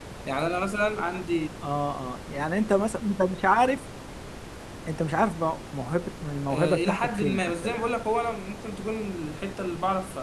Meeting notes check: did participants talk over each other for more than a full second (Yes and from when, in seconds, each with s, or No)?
Yes, from 6.5 s